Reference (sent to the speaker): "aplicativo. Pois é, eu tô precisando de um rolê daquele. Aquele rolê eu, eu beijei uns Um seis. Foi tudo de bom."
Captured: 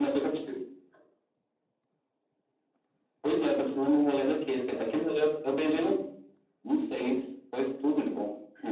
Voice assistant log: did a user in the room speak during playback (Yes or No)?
No